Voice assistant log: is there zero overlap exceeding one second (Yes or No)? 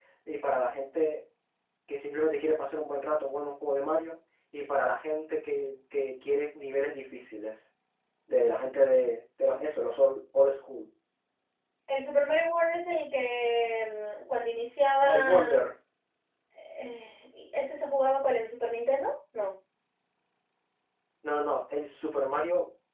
Yes